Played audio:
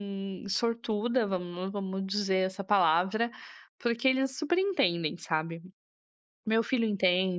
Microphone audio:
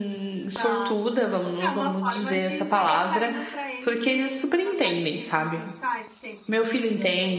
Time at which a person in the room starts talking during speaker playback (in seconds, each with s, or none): 0.5 s